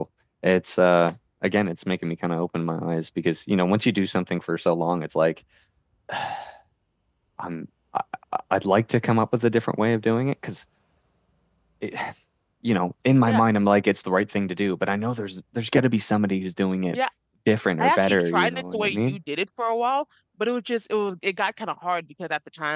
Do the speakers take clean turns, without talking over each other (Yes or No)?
No